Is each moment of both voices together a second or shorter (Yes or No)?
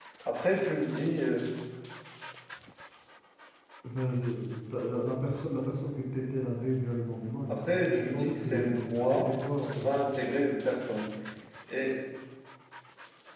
No